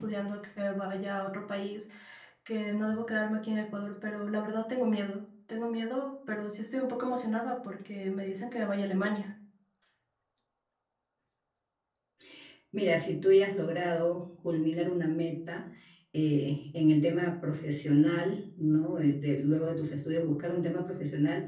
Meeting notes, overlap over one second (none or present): none